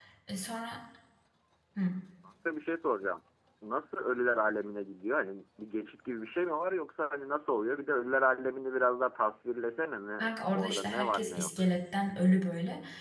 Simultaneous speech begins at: 10 s

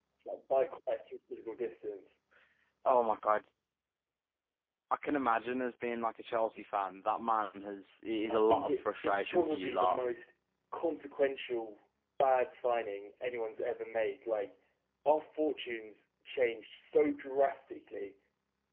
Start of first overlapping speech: 8 s

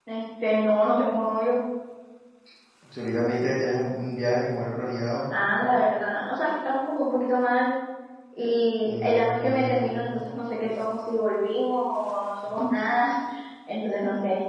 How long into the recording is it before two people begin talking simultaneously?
9 s

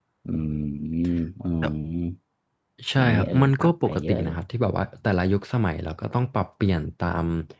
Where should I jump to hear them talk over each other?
3 s

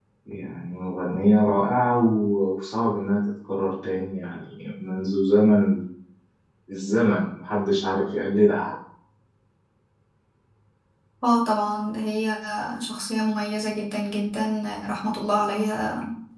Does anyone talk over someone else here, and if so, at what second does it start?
none

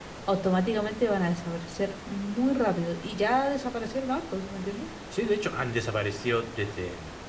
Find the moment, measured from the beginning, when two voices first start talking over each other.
none

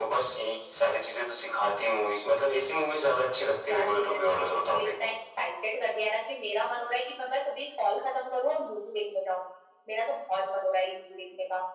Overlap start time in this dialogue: 4 s

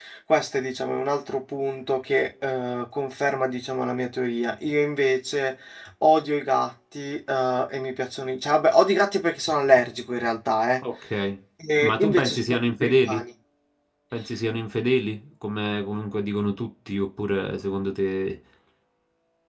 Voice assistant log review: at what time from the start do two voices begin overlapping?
12 s

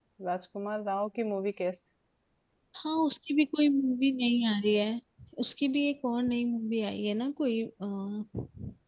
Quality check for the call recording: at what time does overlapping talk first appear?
none

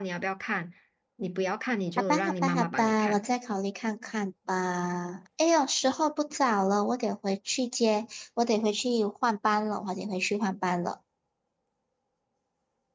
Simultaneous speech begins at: 2 s

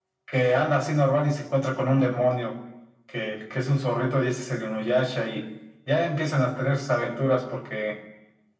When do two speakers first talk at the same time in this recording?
none

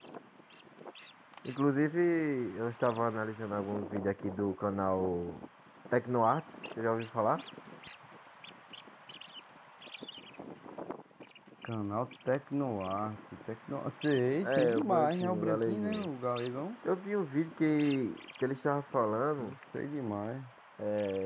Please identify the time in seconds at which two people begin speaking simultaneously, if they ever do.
14 s

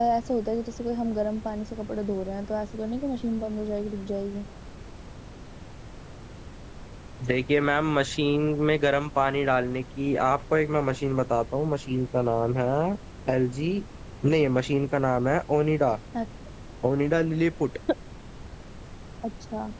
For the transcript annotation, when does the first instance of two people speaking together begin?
none

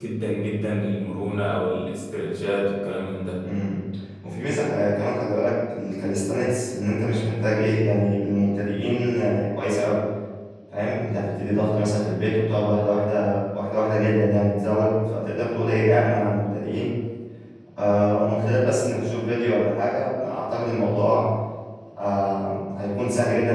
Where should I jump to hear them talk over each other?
none

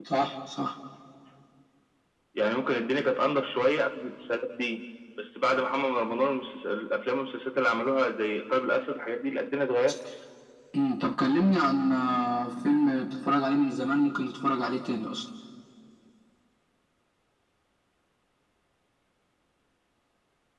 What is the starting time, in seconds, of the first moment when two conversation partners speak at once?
none

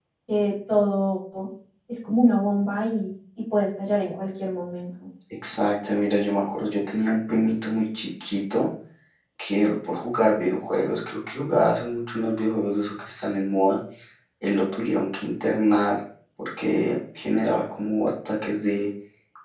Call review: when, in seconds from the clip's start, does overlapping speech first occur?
none

